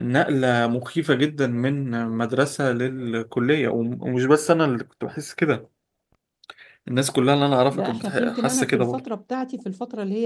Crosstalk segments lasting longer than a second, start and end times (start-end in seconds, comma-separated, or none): 7.7-9.0